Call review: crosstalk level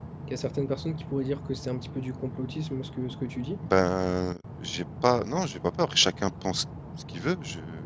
none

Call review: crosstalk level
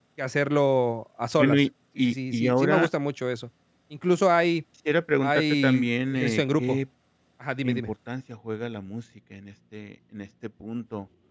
present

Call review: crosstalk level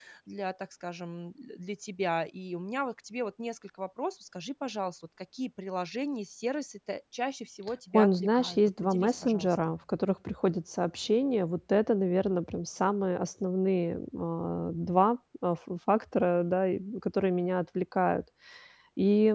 present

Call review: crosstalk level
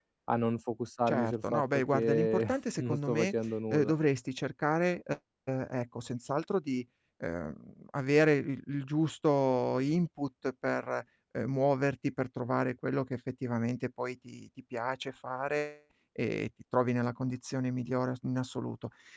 present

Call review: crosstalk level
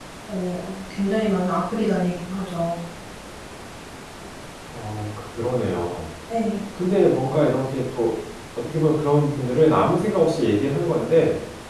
none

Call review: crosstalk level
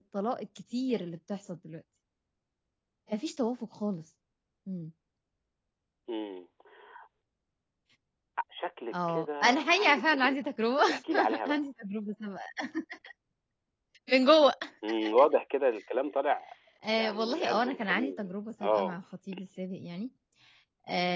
present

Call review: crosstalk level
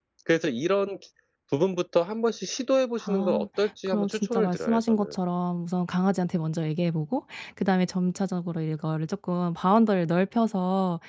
present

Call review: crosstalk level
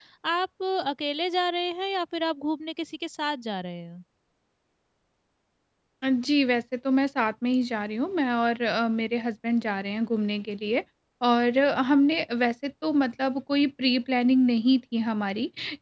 none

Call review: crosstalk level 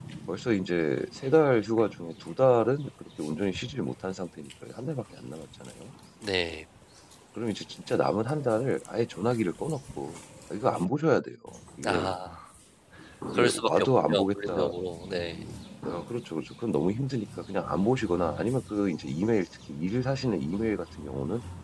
present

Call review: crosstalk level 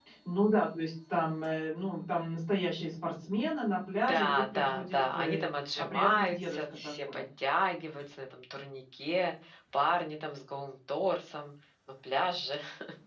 present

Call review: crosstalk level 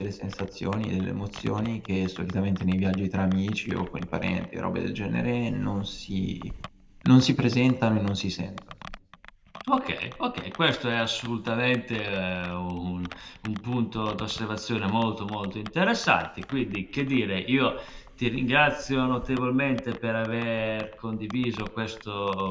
none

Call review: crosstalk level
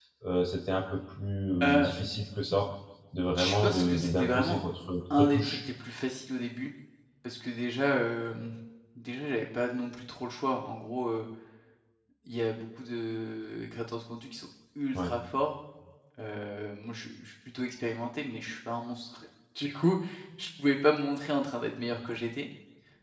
present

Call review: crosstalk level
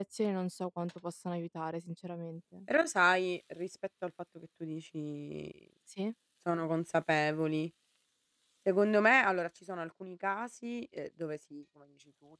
none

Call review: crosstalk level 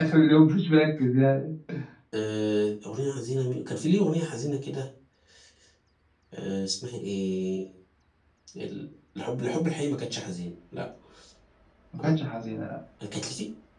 none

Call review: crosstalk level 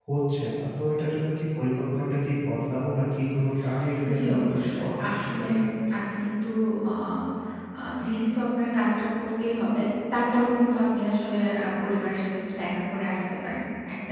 present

